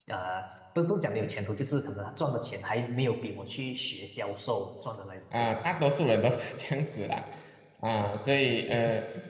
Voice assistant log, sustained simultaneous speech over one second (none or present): none